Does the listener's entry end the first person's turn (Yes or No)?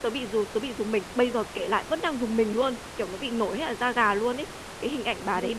No